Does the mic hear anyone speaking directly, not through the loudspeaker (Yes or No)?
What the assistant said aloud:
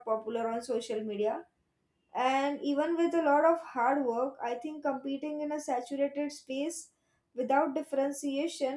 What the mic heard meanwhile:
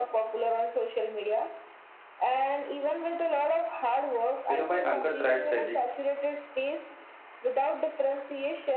Yes